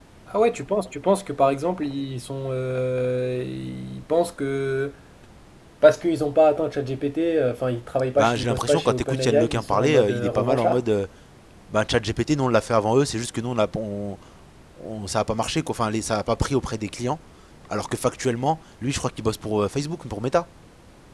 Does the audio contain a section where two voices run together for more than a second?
Yes, from 8.2 s

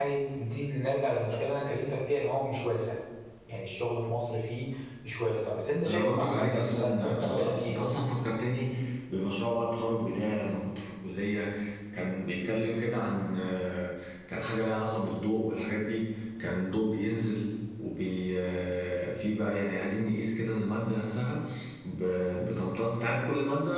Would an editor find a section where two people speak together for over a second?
Yes, from 5.9 s

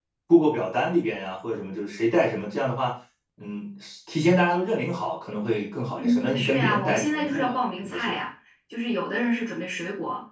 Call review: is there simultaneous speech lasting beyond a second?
Yes, from 6.0 s

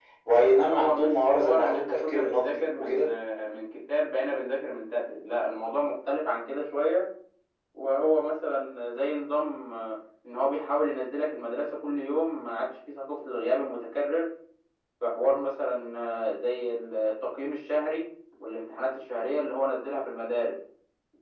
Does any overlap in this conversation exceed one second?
Yes, from 0.5 s

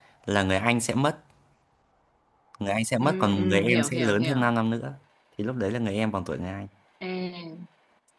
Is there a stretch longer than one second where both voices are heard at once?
Yes, from 3.0 s

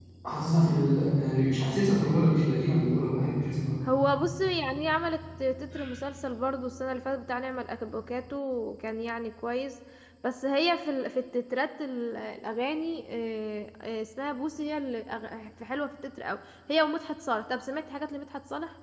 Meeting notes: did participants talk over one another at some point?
No

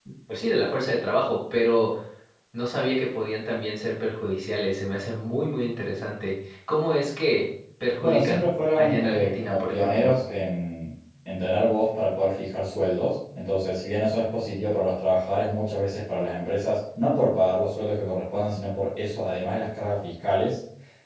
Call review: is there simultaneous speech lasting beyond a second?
Yes, from 8.0 s

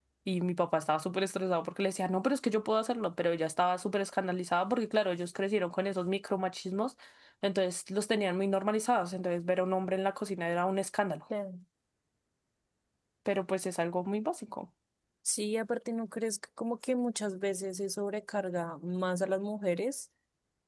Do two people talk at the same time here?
No

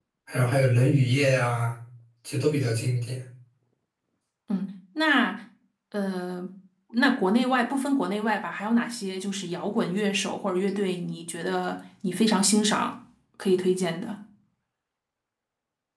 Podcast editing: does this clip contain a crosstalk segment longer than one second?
No

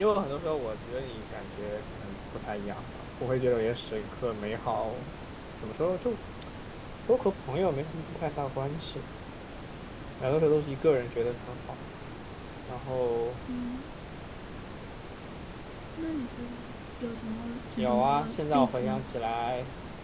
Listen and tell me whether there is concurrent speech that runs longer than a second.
Yes, from 17.8 s

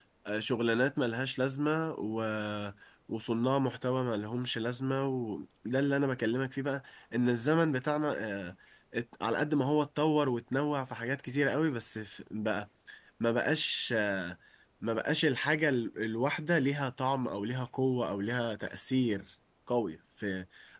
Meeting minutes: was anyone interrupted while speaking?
No

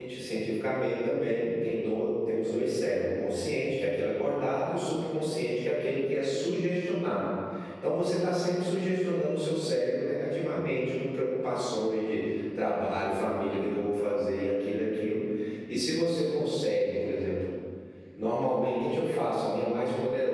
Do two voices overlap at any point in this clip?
No

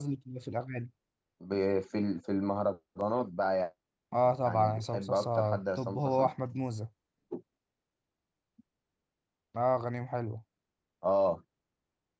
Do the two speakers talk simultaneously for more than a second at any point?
Yes, from 4.4 s

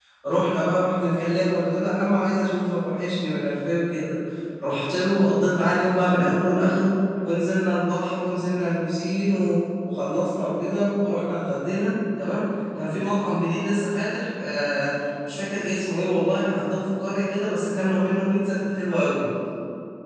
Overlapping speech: No

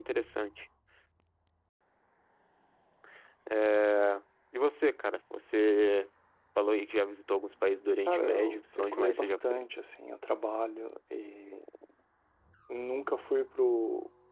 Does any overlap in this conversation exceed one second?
Yes, from 8.0 s

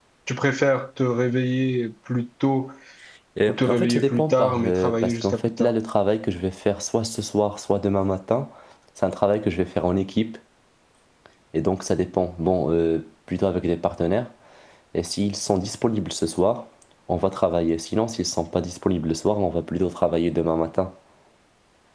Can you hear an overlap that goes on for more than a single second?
Yes, from 3.5 s

